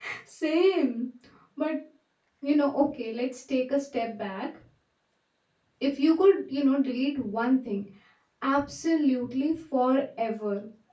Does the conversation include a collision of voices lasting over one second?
No

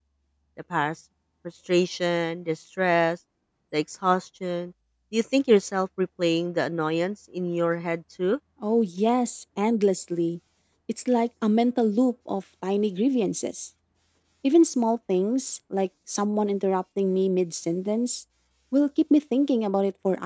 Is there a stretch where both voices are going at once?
No

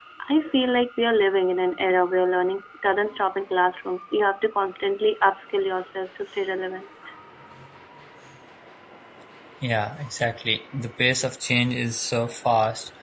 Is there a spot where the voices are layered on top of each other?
No

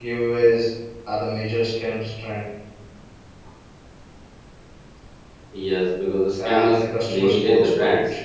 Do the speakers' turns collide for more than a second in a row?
Yes, from 6.4 s

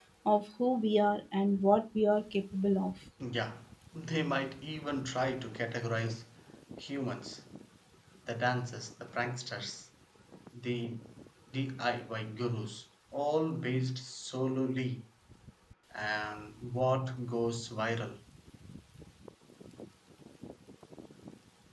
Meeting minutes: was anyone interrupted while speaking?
No

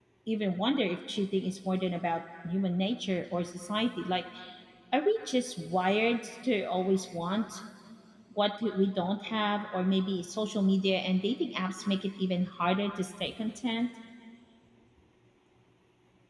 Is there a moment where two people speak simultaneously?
No

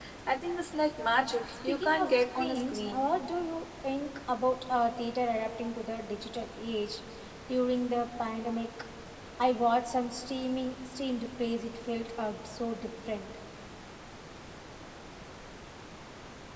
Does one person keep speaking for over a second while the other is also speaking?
Yes, from 1.7 s

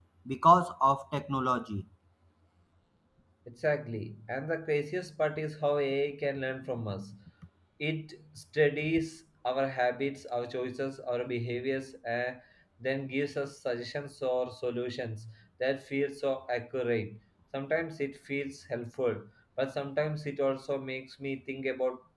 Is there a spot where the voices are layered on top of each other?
No

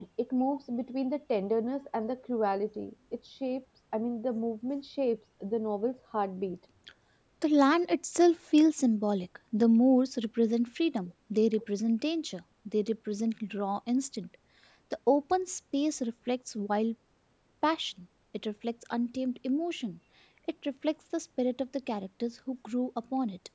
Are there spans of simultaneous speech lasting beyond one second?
No

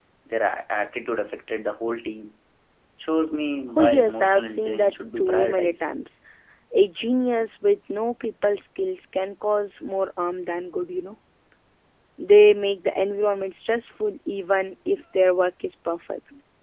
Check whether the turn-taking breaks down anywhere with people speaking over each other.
Yes, from 3.8 s

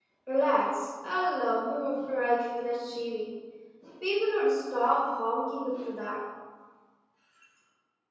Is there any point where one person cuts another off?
No

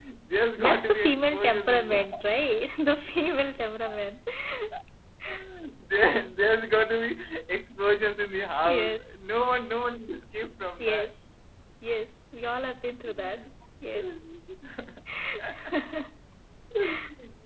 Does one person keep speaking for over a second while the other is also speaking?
Yes, from 0.6 s

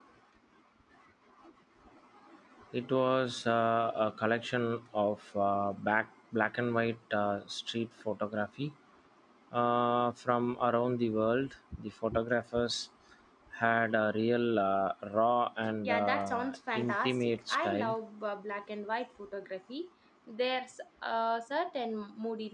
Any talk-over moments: Yes, from 15.8 s

